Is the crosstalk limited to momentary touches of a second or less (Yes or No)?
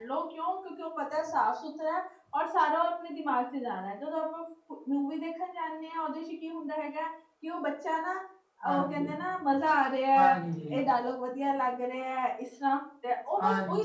Yes